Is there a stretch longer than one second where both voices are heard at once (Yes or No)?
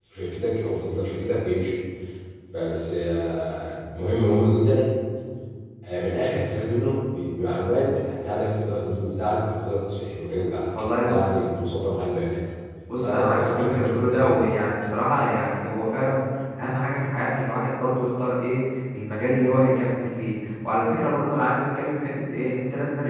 Yes